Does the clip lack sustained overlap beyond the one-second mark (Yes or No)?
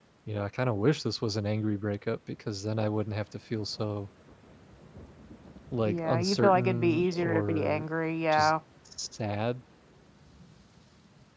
No